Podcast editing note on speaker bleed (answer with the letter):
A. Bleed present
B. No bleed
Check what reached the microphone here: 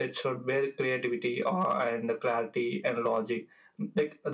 A